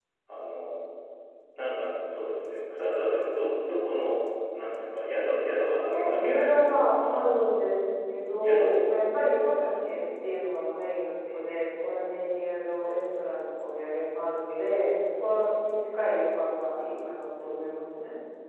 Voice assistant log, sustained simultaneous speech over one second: present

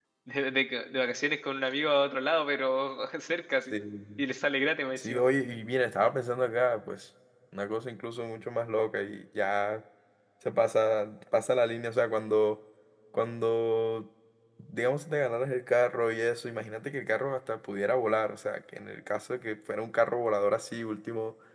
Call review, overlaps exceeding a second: none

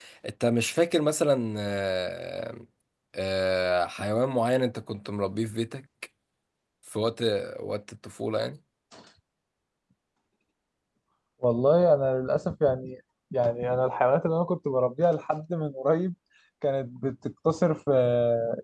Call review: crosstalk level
none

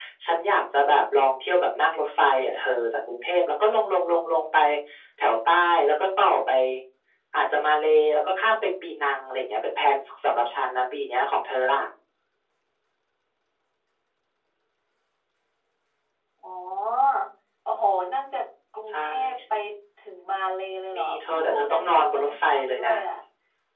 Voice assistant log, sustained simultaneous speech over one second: present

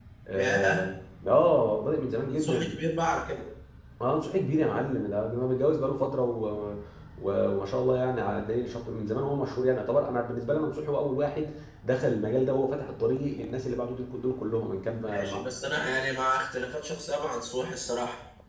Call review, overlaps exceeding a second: none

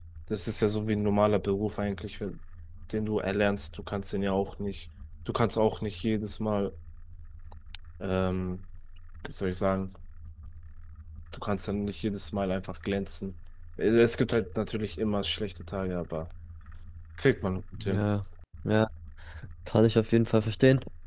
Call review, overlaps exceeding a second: none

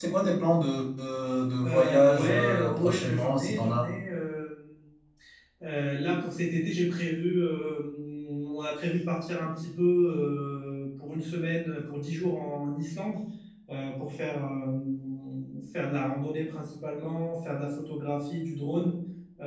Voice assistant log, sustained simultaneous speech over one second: present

